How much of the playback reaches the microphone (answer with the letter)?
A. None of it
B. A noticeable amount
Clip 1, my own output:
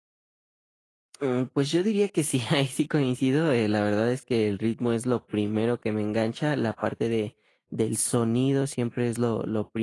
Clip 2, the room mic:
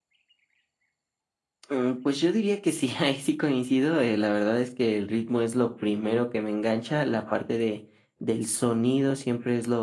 B